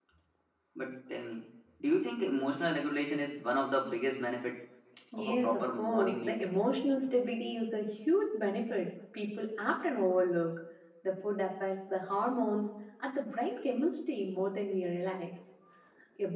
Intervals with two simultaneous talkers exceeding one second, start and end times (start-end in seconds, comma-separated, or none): 5.2-6.4